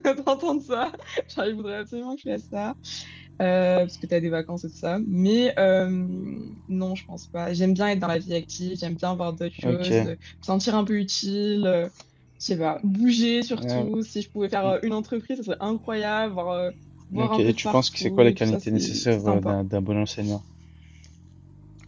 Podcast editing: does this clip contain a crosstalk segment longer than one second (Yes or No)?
Yes